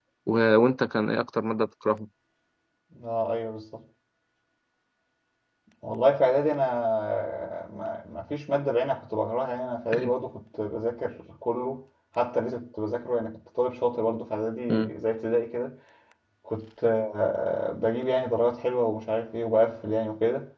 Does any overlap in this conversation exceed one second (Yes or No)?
No